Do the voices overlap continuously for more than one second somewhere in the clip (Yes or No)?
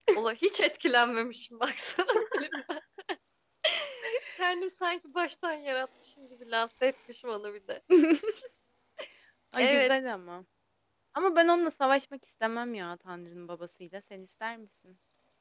No